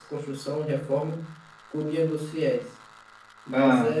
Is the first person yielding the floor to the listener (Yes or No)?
No